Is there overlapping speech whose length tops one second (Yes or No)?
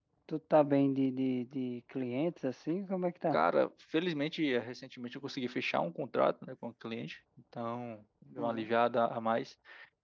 No